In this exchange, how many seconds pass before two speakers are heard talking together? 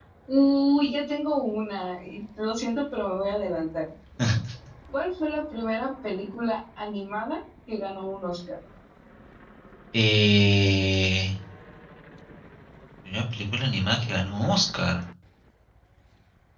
none

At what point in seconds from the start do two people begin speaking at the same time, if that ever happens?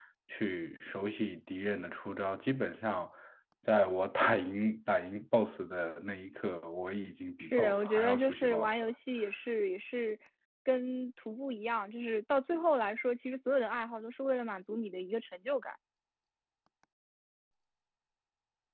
7.4 s

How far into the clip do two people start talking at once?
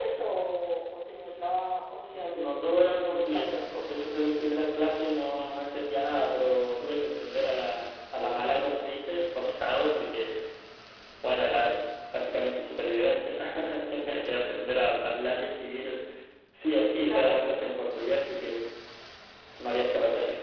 2.3 s

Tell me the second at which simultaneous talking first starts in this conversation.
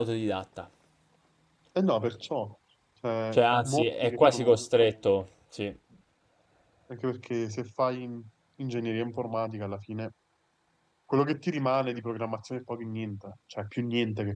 3.3 s

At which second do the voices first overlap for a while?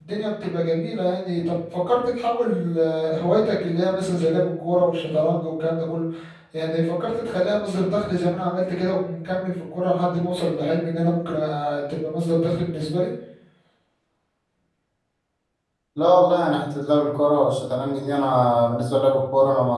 none

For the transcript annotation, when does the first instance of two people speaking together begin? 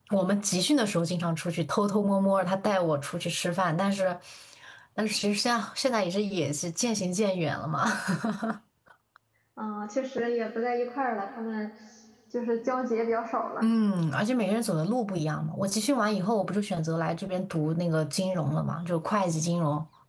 none

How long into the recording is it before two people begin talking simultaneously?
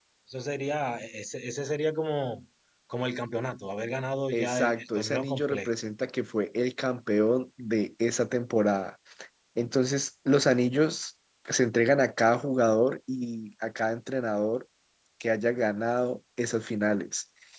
4.3 s

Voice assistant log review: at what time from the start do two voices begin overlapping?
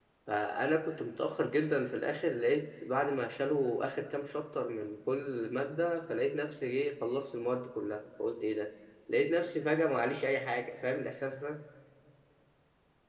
none

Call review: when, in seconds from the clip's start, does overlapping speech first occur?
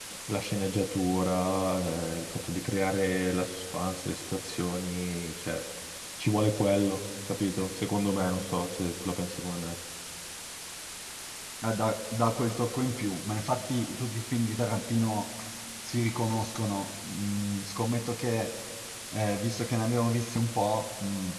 none

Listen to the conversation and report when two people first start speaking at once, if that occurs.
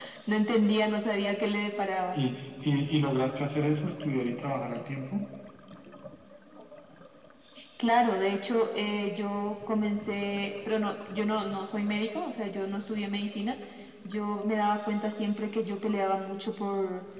none

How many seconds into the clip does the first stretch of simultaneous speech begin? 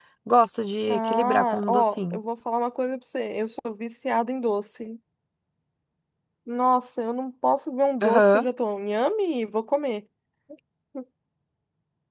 0.9 s

